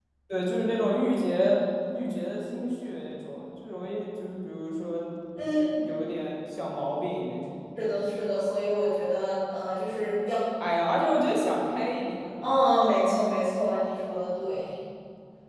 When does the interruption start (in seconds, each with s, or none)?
none